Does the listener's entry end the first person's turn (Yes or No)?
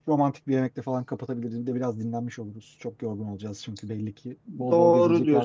Yes